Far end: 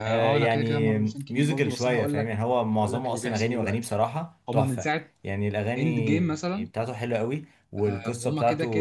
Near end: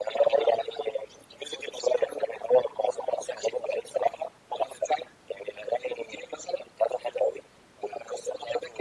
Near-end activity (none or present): none